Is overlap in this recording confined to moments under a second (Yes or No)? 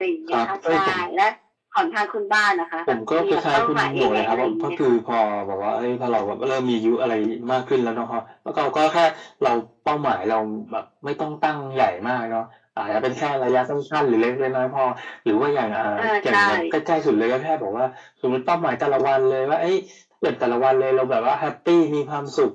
No